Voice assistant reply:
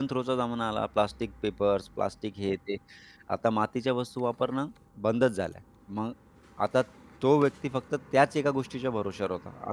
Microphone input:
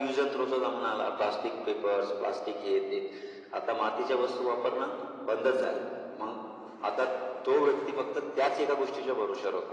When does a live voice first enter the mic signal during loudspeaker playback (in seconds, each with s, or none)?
none